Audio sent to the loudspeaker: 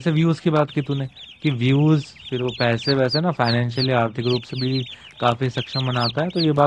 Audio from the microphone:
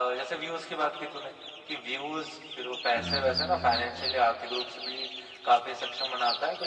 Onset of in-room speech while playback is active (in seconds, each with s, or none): 3.0 s